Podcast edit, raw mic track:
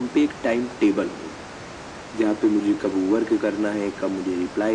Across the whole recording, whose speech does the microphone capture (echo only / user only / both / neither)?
echo only